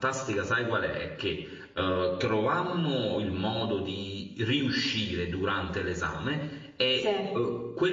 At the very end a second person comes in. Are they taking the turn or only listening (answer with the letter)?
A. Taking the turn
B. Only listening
B